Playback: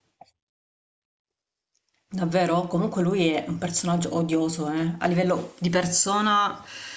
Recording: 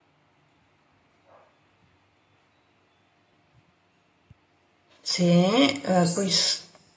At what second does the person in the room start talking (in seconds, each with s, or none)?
5.0 s